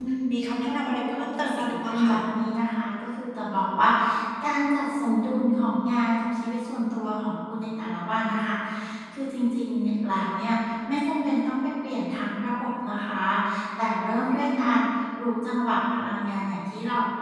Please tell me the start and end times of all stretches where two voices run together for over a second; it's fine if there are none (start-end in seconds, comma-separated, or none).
0.6-2.1